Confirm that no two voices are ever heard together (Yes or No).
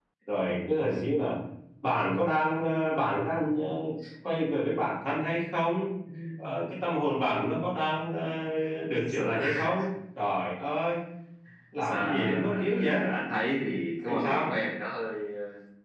No